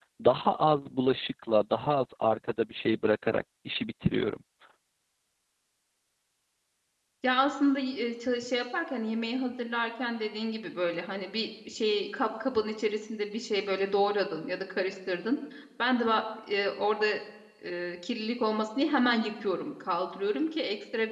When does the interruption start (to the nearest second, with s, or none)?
none